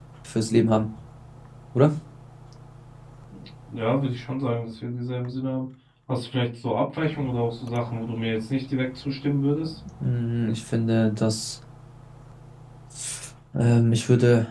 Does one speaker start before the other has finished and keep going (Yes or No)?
No